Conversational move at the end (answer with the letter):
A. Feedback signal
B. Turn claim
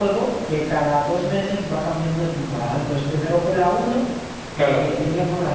A